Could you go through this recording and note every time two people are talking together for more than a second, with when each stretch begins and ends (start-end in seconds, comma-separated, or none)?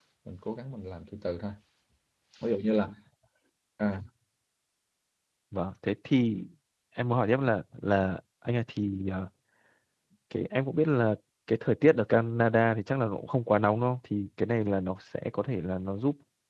none